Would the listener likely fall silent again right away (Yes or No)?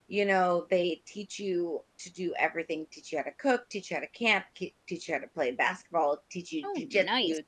Yes